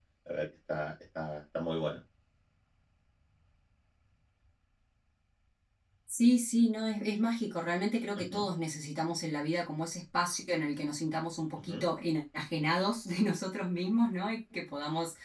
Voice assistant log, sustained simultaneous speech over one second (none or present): none